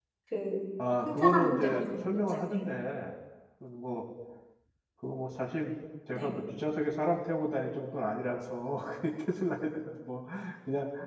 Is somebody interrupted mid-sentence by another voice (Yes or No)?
Yes